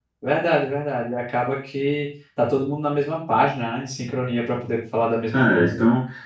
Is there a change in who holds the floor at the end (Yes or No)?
Yes